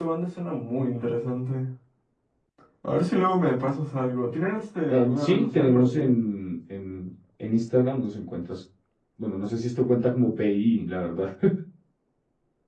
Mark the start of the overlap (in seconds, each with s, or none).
4.9 s